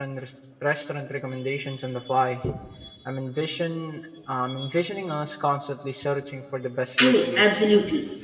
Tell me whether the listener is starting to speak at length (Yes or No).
Yes